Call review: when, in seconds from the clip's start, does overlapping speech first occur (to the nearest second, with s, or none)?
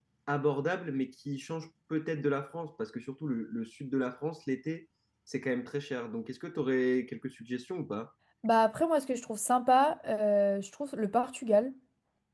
none